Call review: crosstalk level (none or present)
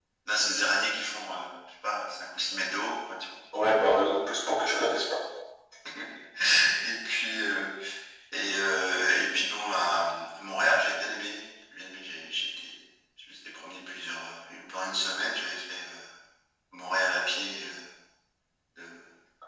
none